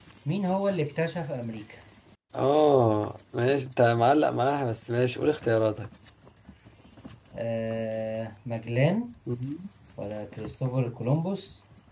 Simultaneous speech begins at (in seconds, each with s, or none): none